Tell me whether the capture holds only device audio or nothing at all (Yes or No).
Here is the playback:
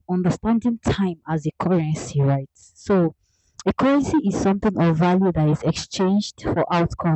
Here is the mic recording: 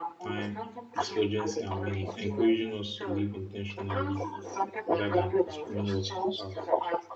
No